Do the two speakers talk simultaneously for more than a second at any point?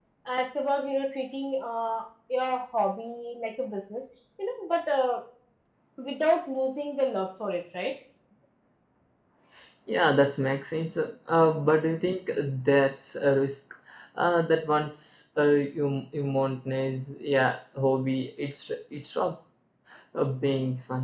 No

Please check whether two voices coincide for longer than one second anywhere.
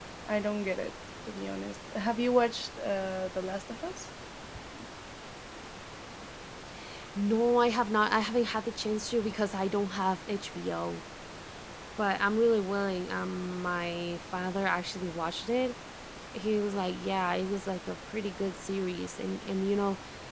No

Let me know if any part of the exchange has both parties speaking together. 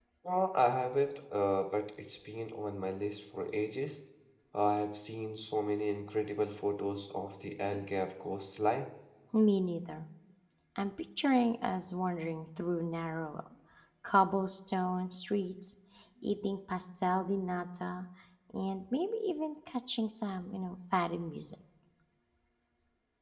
No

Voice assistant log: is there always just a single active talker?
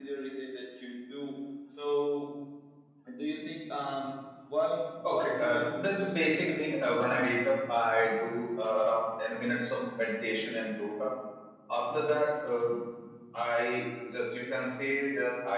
No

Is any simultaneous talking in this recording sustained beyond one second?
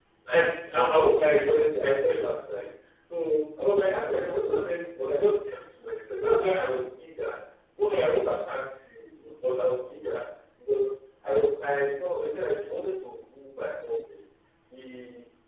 No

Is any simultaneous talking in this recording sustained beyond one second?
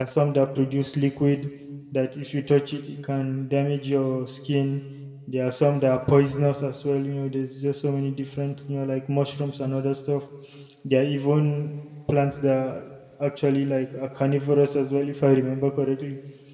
No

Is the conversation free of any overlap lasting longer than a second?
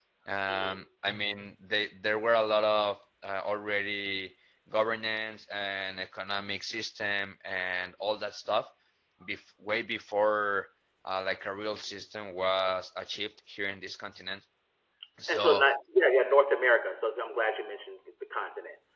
Yes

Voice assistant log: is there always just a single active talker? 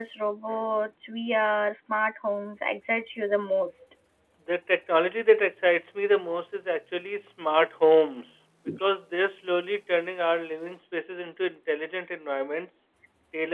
Yes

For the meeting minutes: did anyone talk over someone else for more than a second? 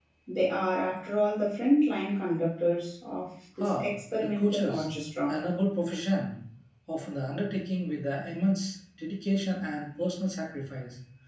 Yes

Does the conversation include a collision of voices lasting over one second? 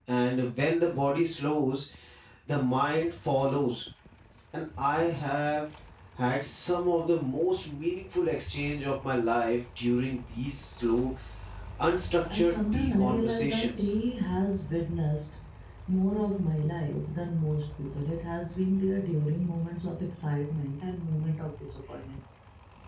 Yes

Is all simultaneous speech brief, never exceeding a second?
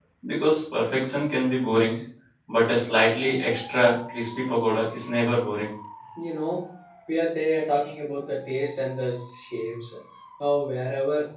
Yes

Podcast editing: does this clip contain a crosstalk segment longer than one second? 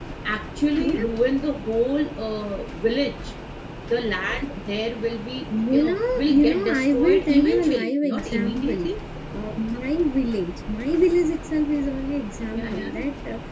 Yes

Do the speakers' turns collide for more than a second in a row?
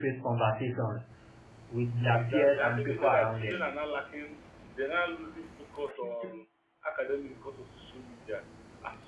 Yes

